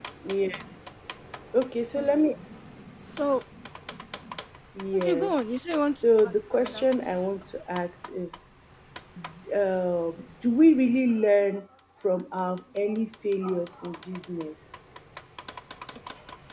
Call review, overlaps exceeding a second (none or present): present